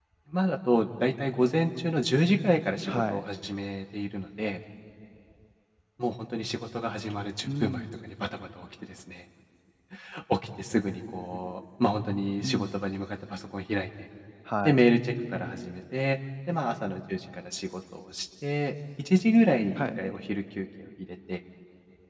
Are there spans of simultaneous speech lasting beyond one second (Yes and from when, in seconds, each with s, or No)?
No